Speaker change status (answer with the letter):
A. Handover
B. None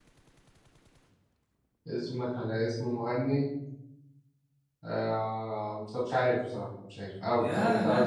A